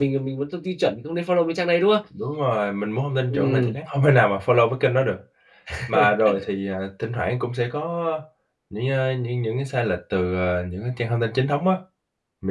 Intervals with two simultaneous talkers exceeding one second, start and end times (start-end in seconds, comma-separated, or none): none